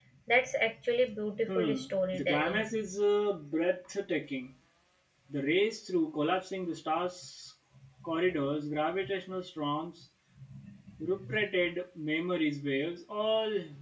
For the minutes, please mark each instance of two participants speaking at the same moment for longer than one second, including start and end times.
1.5-2.7

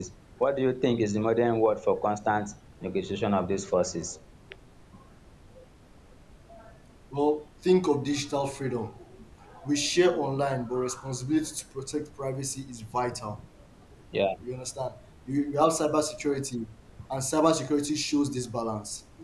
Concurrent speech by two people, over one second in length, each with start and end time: none

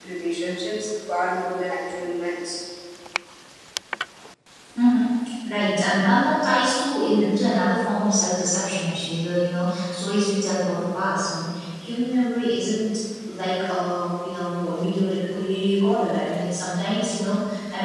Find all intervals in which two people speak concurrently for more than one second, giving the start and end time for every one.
none

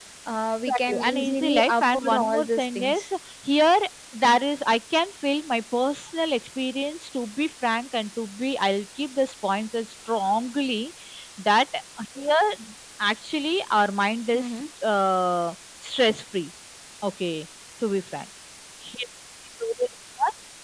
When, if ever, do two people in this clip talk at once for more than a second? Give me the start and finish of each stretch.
0.7-3.0

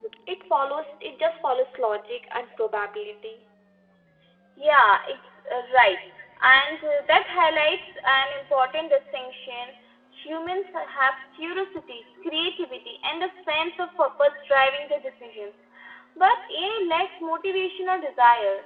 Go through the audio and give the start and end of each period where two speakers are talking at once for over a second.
none

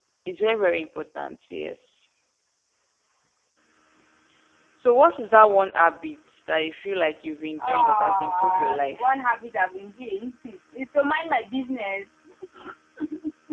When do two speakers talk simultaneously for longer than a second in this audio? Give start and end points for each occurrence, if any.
7.6-9.1

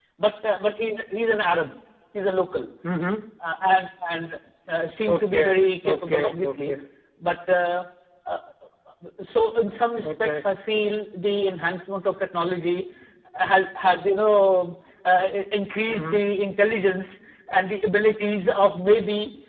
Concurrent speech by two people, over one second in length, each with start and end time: 5.1-6.7

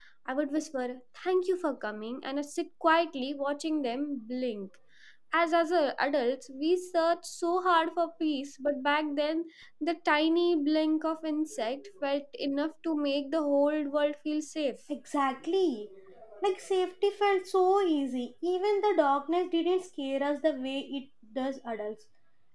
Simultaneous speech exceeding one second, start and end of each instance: none

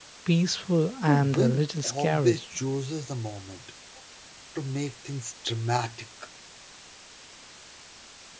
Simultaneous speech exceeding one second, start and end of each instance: 1.1-2.4

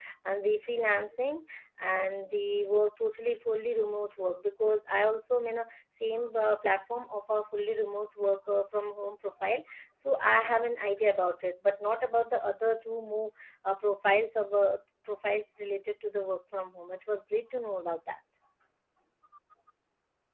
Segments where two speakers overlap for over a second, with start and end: none

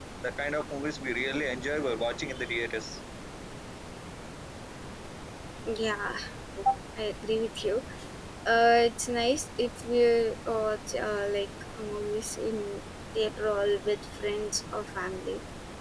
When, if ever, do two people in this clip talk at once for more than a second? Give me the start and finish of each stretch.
none

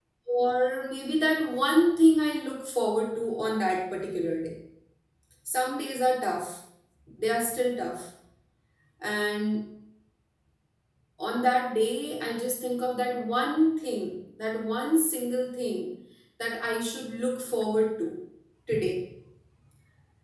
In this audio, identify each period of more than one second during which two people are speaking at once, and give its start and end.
none

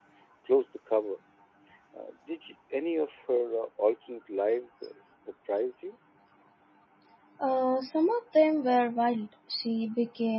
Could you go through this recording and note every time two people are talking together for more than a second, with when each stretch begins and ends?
none

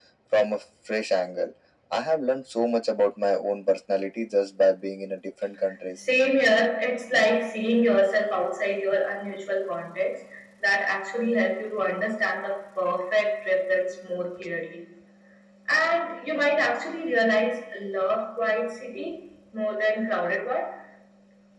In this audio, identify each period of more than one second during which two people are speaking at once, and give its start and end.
none

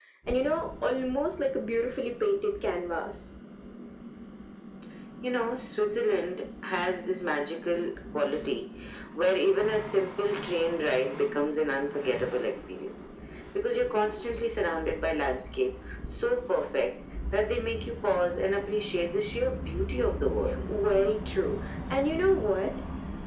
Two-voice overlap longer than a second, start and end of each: none

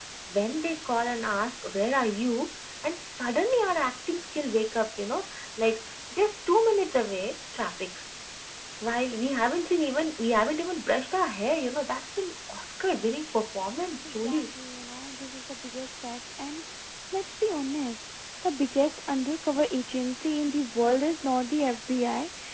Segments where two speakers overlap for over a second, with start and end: none

